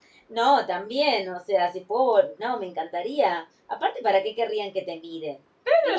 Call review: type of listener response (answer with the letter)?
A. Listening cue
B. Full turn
B